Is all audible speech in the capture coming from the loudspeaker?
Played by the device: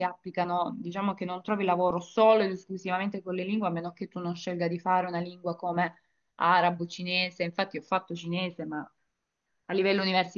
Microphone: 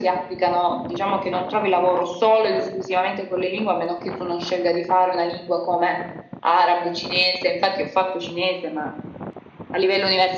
Yes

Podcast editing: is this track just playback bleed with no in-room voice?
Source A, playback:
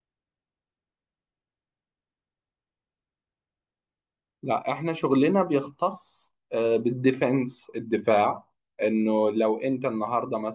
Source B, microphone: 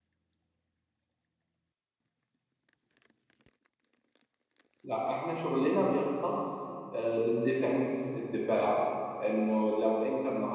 Yes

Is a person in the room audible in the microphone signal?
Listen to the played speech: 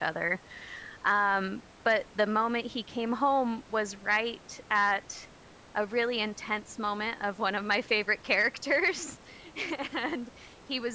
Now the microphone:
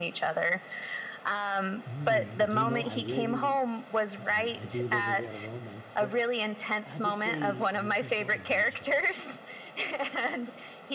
Yes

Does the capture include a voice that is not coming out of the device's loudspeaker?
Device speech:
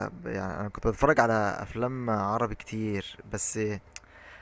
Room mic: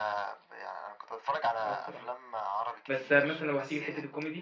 Yes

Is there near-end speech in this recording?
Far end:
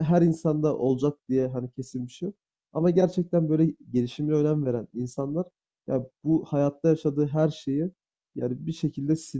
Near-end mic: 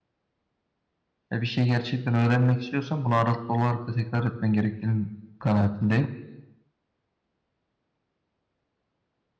Yes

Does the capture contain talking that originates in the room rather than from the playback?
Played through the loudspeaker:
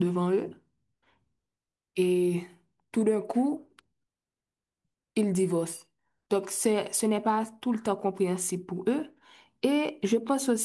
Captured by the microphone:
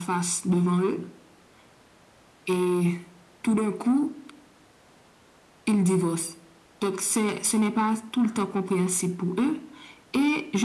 No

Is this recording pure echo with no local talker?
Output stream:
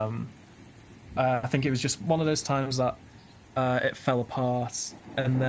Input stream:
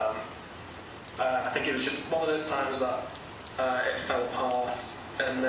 Yes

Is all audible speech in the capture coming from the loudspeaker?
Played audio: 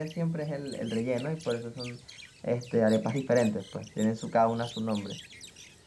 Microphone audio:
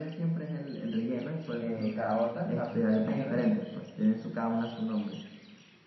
No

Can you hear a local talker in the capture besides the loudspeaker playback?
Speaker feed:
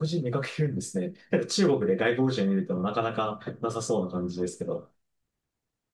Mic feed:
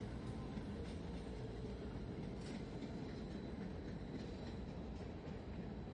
No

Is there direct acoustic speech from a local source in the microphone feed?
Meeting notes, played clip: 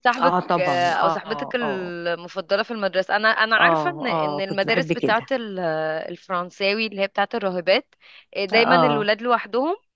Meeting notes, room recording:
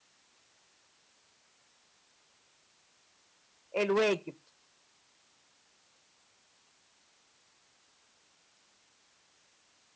Yes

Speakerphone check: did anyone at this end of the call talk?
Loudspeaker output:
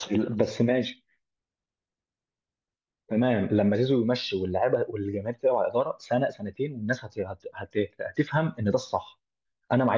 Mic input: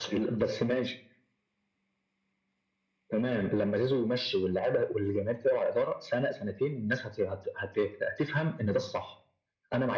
No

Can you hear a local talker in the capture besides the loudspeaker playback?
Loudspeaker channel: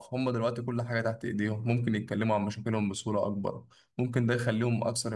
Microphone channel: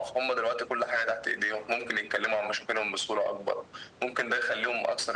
No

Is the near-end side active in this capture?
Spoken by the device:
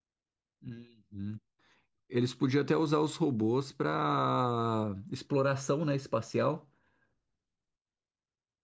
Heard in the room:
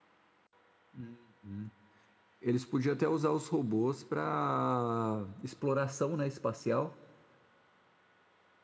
No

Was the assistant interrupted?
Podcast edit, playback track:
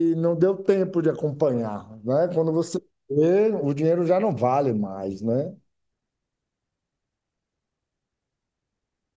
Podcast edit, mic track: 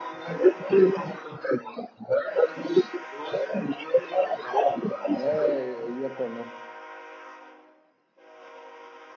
Yes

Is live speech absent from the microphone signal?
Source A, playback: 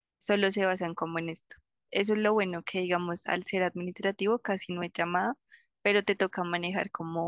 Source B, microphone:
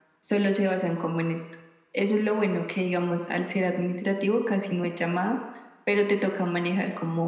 Yes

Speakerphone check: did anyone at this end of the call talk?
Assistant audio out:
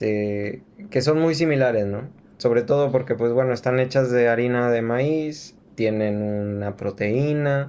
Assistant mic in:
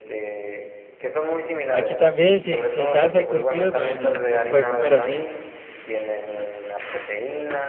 Yes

